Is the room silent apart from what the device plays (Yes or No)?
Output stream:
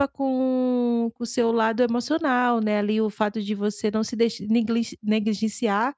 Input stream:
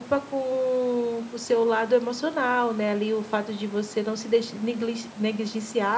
Yes